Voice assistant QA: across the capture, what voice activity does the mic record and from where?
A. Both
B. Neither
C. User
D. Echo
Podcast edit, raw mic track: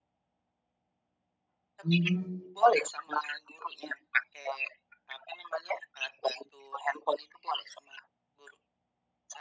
A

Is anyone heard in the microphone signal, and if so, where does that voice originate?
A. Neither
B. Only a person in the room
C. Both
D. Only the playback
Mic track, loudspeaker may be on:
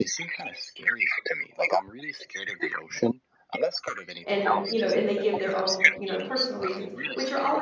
C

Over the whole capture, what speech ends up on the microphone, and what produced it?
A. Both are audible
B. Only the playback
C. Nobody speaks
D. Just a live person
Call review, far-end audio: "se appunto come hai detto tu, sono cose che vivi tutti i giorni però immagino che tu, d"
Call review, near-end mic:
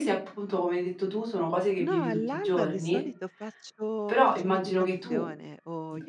A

